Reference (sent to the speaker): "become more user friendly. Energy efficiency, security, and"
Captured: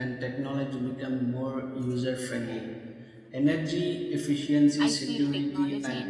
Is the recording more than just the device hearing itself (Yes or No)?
Yes